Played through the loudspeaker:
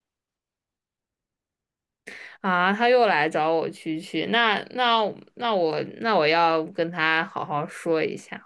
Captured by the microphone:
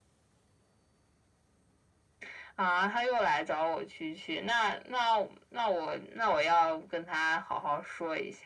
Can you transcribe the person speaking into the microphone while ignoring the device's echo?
none

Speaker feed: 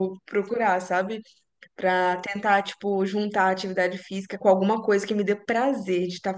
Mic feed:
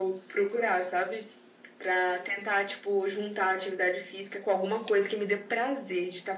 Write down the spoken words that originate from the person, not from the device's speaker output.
none

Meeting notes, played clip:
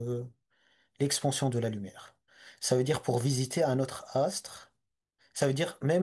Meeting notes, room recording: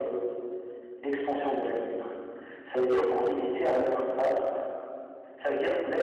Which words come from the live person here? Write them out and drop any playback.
none

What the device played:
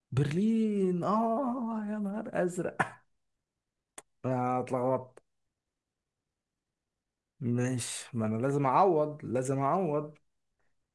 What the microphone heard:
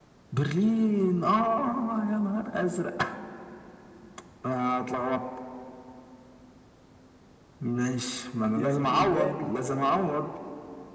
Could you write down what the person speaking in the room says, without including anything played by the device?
يعني في مكان

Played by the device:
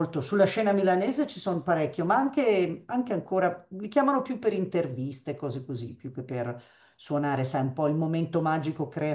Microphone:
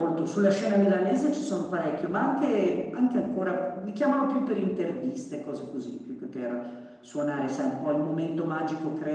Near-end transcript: none

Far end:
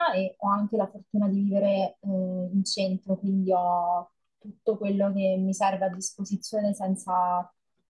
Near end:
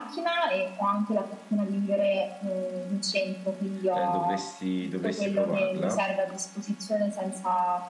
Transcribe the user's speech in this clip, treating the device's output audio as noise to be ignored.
eh, dovresti, dovresti provarla,

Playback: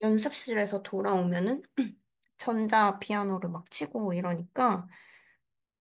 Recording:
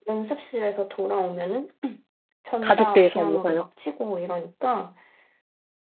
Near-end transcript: 가족들 사이에서요.

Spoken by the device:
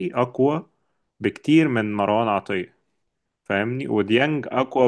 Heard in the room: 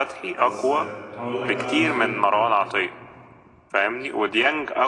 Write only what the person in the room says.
بس آه، هقول لك بقى نظرتي

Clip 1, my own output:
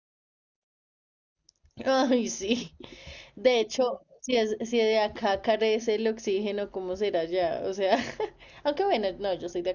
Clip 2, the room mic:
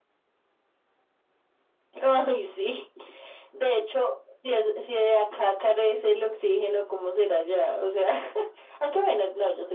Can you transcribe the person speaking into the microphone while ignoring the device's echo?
none

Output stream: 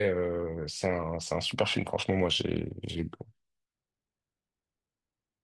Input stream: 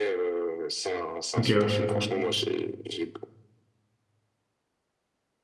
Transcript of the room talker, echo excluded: Ok, ouais.

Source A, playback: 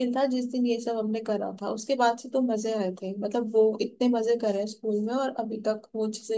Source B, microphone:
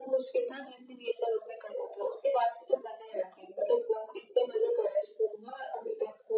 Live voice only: none

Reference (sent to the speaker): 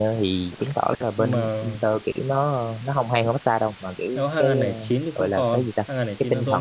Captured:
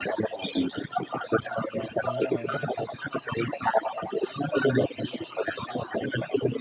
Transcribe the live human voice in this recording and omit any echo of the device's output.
Ừ, nhưng mà

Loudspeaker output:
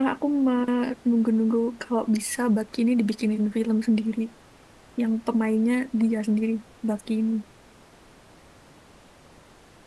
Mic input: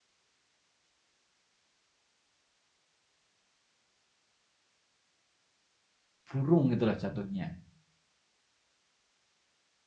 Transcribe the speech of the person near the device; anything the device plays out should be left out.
burung gitu lah jatuhnya.

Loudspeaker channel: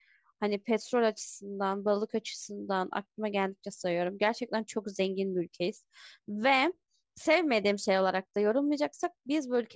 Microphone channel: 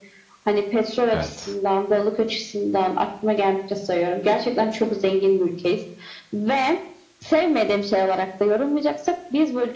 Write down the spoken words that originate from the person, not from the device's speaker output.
Evet.

